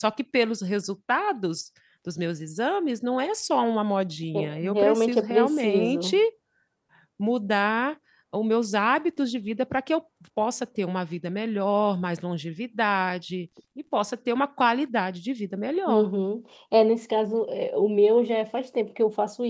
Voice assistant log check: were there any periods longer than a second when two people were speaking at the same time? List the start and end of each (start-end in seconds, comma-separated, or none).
4.3-6.2